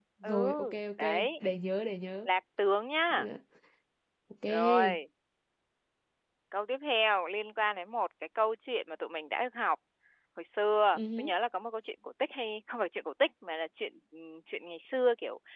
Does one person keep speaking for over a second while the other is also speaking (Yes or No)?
No